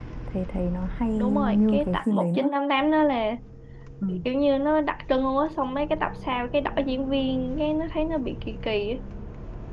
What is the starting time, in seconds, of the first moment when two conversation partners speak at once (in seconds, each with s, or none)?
1.1 s